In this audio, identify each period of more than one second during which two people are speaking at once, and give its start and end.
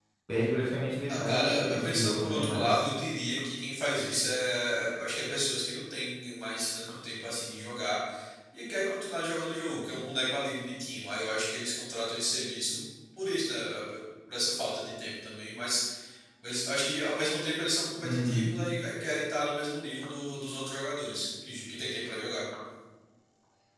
1.1-2.9

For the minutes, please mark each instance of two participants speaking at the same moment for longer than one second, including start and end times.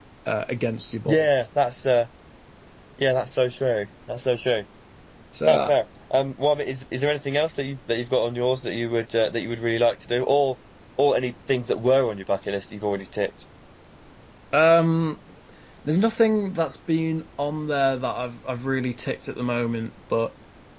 none

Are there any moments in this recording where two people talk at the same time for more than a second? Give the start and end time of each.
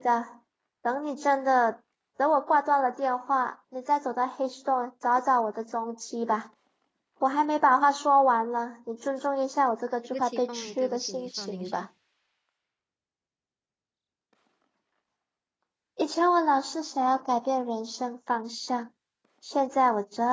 10.1-11.8

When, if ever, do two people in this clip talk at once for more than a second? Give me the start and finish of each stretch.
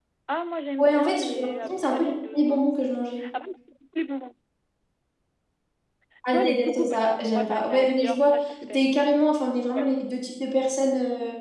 0.8-2.7, 6.3-8.3

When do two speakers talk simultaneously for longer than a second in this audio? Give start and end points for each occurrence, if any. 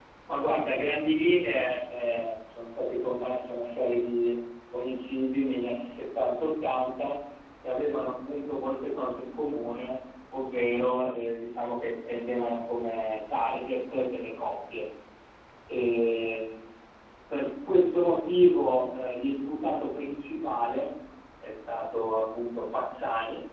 none

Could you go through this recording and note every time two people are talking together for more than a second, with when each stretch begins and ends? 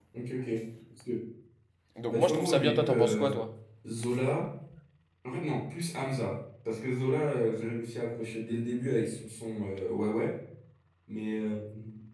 2.1-3.4

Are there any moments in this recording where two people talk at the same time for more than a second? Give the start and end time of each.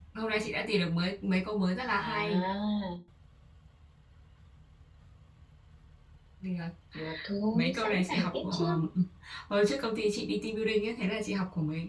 7.5-8.8

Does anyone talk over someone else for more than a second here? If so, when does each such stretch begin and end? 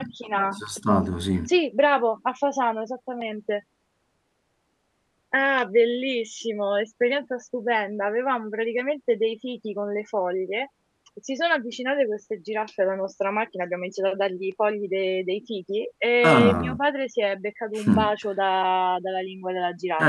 none

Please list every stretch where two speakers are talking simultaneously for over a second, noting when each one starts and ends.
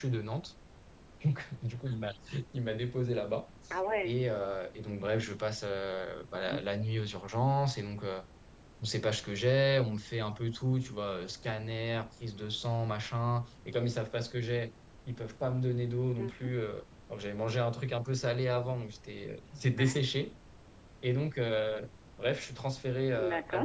none

